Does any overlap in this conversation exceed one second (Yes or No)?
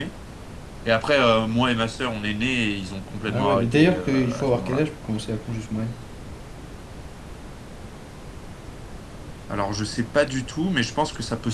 Yes